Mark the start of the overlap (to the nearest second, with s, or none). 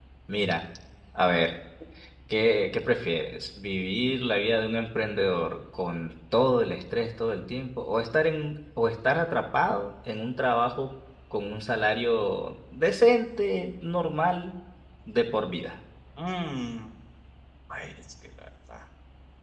none